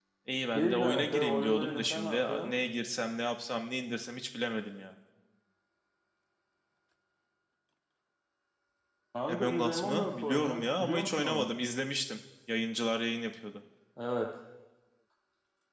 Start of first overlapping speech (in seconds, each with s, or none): 0.5 s